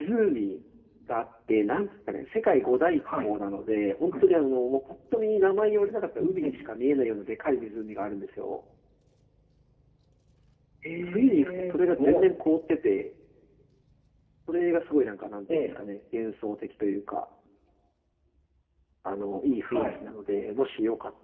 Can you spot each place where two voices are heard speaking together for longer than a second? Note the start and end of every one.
11.0-12.3

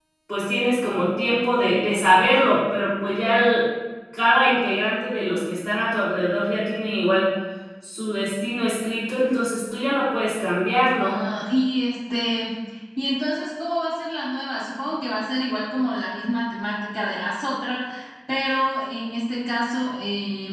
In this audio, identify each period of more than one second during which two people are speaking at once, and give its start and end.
none

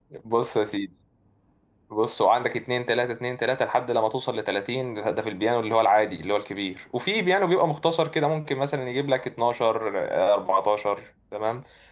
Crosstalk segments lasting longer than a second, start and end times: none

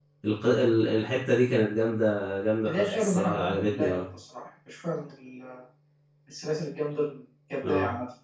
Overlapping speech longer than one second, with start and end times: 2.6-4.0

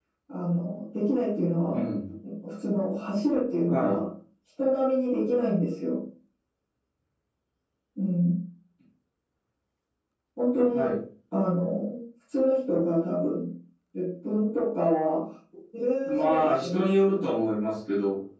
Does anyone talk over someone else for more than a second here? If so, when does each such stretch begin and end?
16.0-17.5

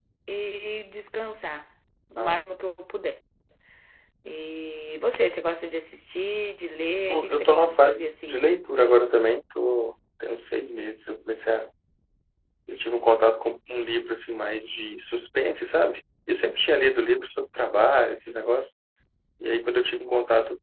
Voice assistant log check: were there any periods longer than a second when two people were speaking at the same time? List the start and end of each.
7.1-8.5

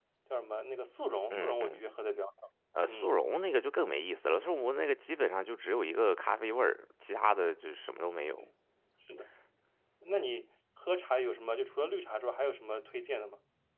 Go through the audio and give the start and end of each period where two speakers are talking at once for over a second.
none

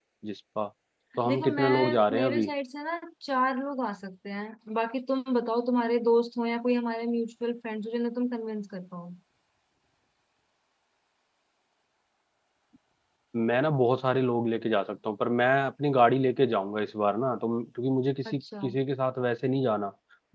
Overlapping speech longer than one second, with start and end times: 1.3-2.5

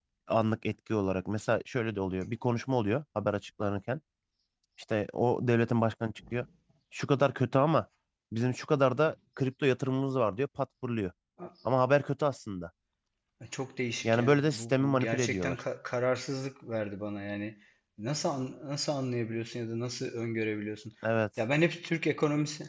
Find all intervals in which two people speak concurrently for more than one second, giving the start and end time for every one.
14.0-15.6

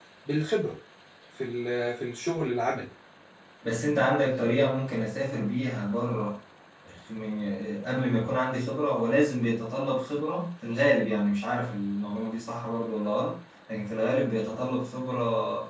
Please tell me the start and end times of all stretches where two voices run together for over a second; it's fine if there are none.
none

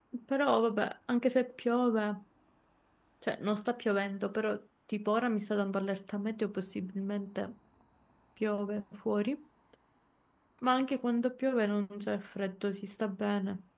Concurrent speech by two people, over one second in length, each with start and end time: none

